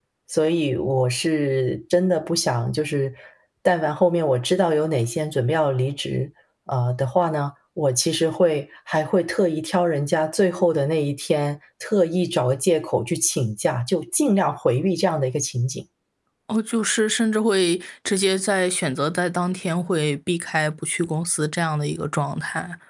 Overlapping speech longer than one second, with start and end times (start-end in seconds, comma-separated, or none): none